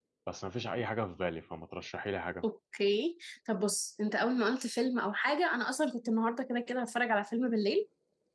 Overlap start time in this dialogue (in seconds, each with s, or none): none